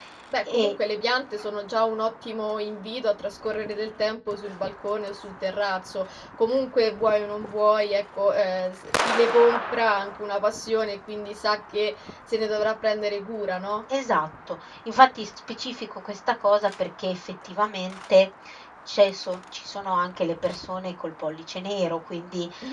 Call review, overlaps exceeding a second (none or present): none